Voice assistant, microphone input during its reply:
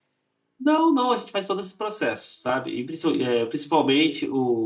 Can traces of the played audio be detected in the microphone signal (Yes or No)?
No